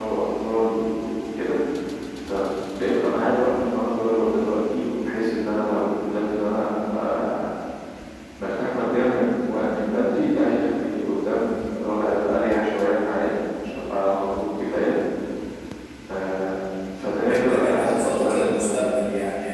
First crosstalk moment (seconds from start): 17.2 s

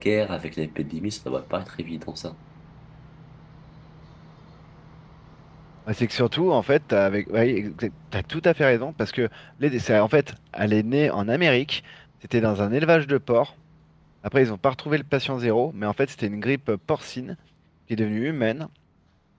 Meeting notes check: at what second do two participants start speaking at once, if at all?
none

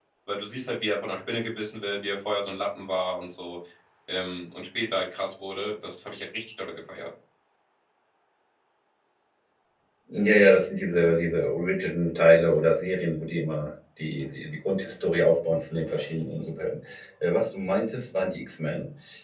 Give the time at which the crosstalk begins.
none

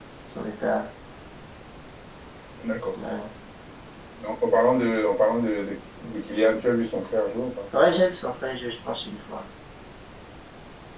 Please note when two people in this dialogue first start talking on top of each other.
none

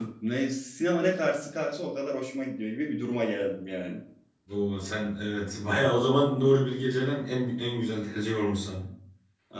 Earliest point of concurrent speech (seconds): none

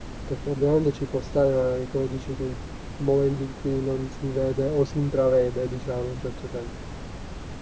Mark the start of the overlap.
none

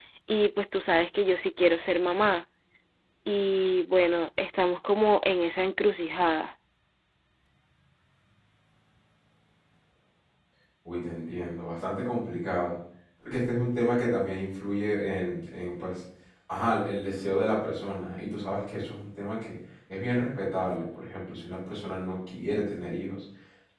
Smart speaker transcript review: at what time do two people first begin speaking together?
none

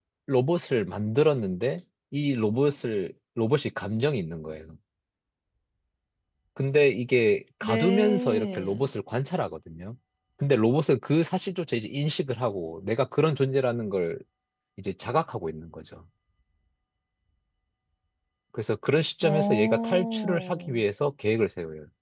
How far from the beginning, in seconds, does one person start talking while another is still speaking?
7.6 s

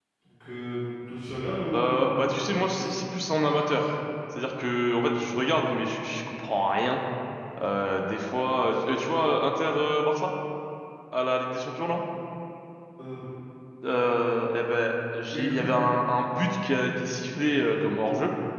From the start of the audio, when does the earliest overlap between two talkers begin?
1.7 s

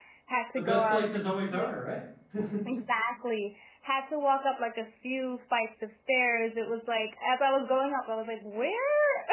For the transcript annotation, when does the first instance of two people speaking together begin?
0.6 s

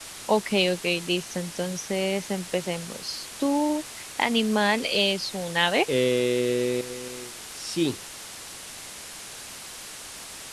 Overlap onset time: none

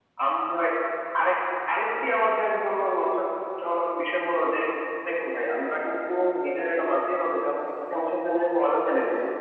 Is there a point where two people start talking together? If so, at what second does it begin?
none

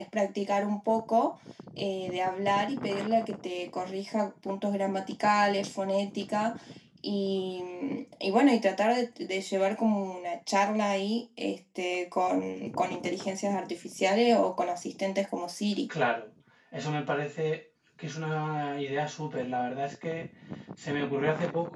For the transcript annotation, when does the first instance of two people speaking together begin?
none

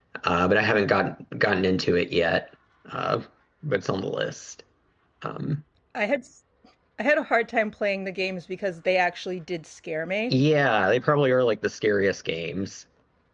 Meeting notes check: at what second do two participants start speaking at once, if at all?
none

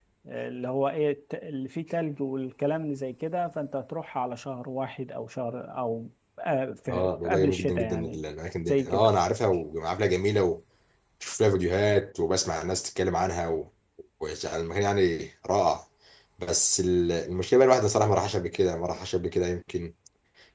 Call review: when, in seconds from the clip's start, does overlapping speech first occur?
6.9 s

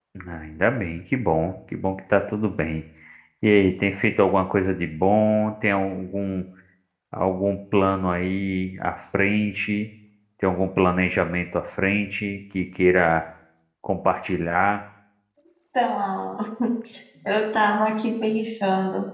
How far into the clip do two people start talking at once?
none

